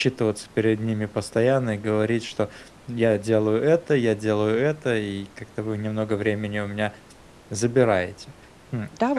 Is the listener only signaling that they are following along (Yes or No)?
No